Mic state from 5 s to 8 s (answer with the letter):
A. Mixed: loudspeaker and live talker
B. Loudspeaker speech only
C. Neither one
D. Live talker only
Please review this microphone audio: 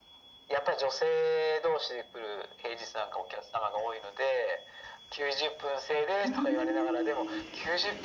A